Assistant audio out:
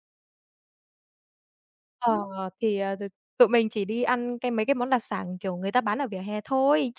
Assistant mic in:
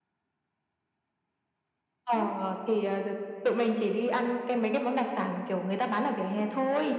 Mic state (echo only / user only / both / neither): echo only